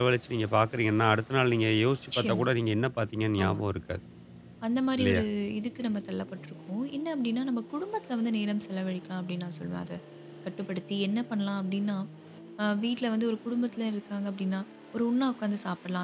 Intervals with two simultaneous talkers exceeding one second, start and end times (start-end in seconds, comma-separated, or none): none